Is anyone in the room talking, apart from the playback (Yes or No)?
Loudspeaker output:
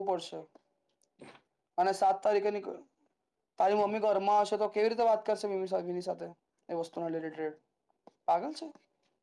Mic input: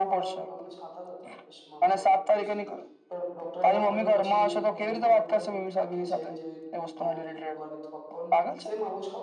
Yes